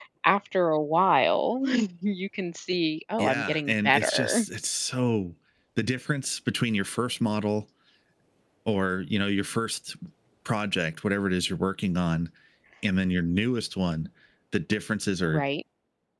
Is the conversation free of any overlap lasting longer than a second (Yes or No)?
No